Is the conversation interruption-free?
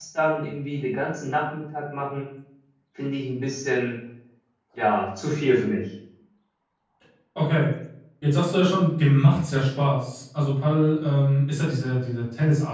Yes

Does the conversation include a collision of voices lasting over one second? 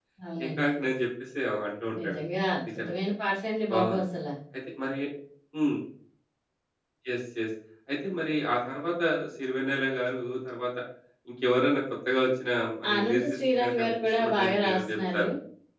Yes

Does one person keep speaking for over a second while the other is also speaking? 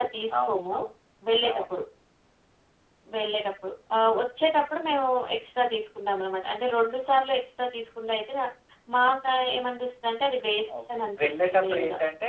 Yes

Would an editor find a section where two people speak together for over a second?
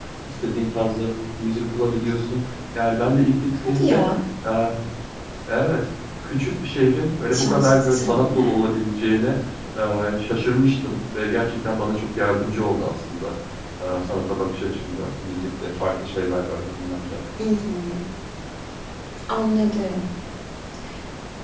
Yes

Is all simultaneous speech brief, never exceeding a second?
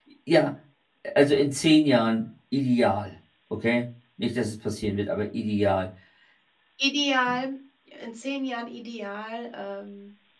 Yes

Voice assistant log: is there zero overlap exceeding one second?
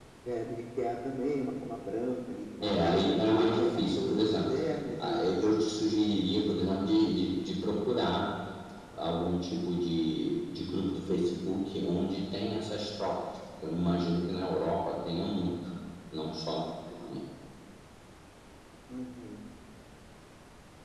No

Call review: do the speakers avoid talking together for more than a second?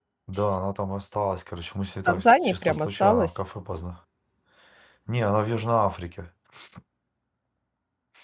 No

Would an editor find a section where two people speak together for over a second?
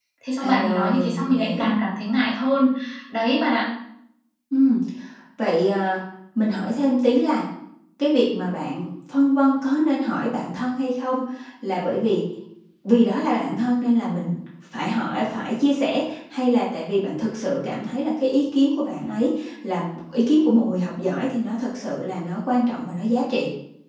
Yes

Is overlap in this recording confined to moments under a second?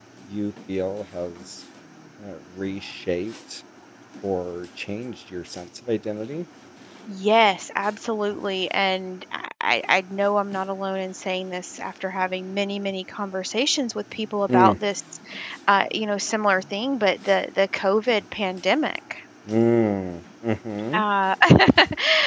Yes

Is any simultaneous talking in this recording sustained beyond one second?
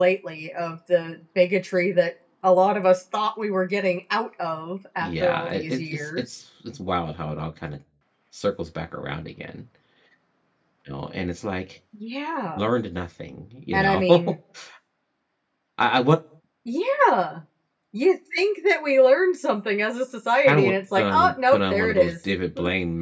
Yes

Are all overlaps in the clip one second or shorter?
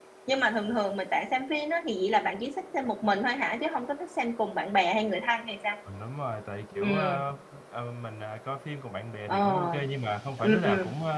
Yes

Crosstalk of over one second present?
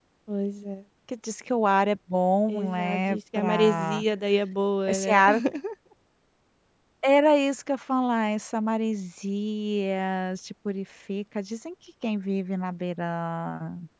Yes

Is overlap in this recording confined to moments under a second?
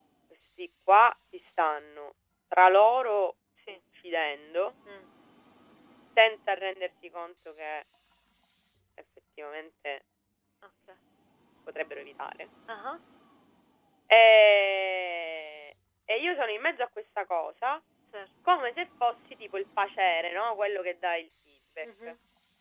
Yes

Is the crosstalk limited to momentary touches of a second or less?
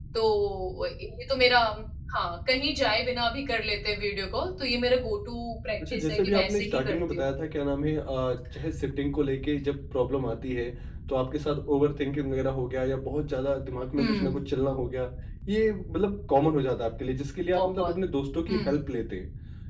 No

